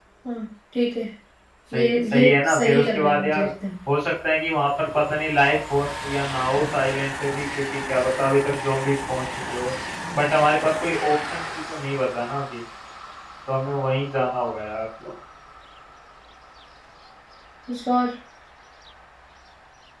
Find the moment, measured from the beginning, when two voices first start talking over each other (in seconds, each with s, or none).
1.7 s